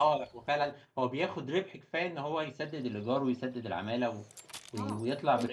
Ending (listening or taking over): taking over